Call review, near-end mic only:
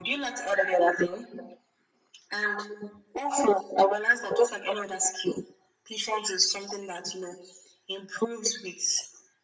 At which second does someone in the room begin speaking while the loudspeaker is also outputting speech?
none

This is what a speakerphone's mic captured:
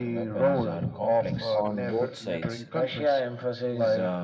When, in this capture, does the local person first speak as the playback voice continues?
2 s

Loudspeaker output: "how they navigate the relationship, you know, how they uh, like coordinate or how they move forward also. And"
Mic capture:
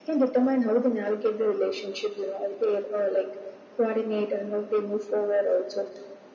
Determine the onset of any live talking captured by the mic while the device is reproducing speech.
none

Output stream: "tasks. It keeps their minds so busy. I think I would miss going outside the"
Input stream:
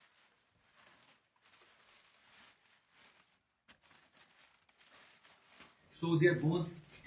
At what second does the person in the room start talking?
6 s

